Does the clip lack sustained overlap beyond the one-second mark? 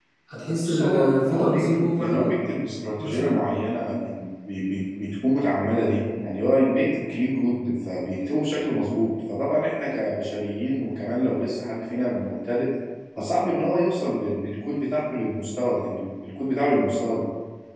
No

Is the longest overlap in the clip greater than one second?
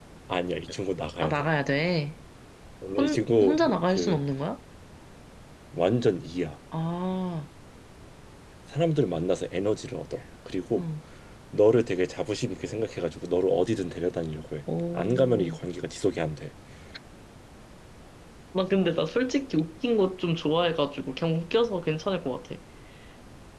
Yes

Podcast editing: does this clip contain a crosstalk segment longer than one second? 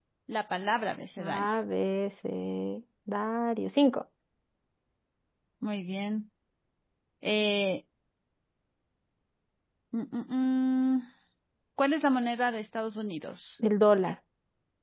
No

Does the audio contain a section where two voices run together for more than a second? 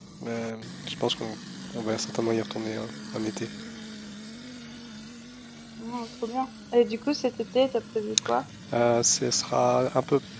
No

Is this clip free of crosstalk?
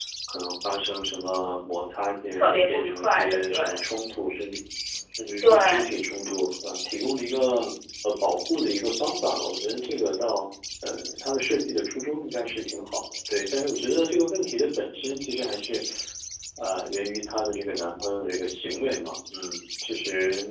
No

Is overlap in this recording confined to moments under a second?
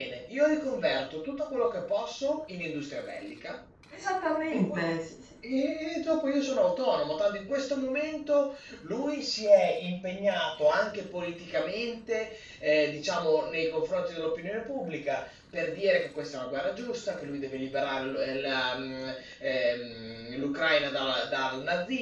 Yes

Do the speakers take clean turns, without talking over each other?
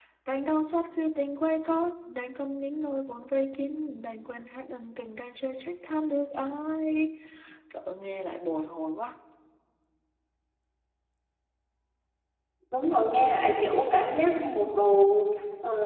Yes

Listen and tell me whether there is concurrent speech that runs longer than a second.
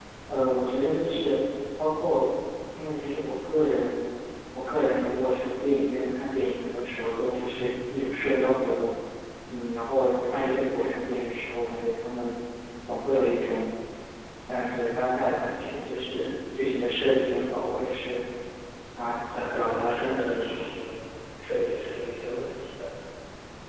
Yes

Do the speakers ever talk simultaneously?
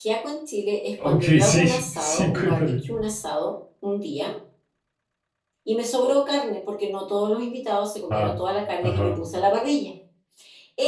Yes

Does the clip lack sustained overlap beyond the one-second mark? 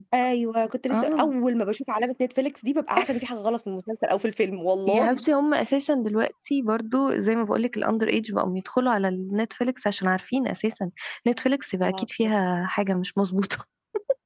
Yes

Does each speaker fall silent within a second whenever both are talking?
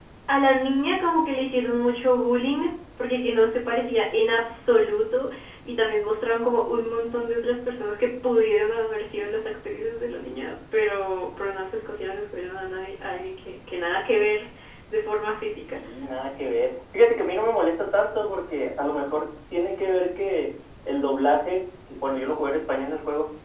Yes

